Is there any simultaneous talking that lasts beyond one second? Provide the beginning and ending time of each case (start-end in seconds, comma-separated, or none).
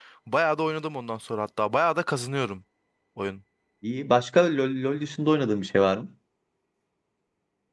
none